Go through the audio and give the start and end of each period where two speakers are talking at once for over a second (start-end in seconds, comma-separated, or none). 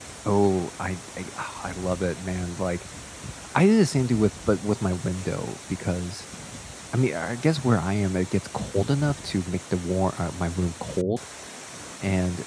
none